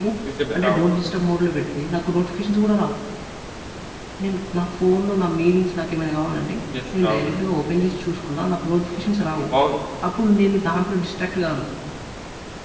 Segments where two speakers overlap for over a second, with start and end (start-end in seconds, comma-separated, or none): none